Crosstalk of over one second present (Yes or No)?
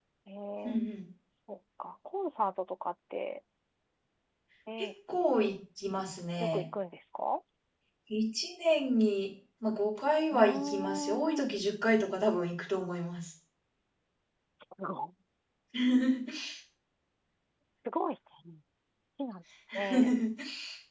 Yes